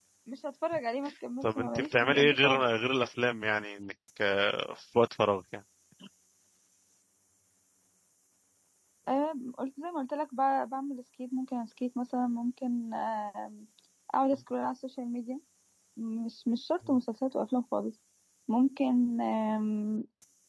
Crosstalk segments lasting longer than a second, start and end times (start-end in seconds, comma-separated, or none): 1.4-2.7